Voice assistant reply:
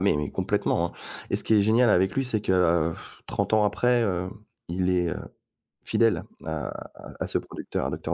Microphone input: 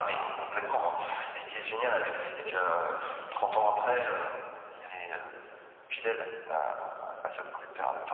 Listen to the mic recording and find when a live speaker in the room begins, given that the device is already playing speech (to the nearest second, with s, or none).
2 s